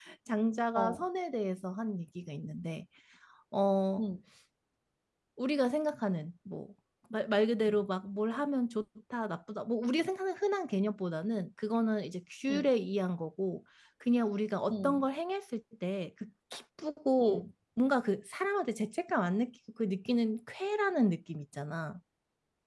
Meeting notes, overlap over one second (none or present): none